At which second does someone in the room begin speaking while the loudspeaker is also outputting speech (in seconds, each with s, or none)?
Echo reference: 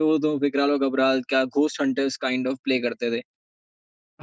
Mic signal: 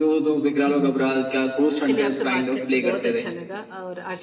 0.7 s